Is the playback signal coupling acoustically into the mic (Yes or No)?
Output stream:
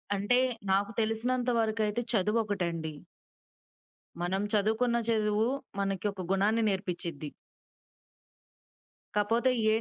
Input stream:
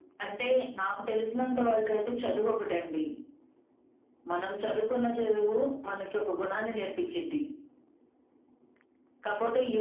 Yes